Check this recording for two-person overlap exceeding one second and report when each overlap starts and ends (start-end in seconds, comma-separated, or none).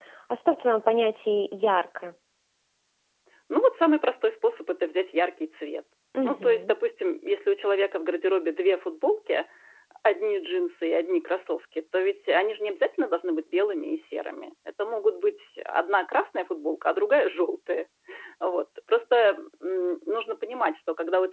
none